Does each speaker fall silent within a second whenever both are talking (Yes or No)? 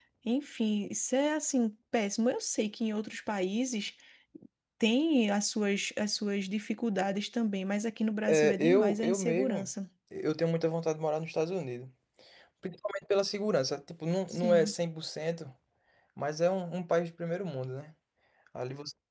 No